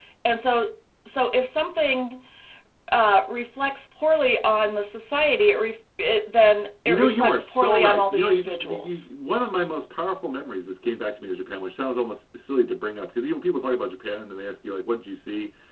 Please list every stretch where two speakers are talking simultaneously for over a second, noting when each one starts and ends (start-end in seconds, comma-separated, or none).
6.8-9.1